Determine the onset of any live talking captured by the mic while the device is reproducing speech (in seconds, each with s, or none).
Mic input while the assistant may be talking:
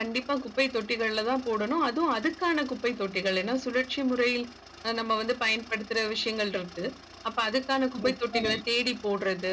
8.0 s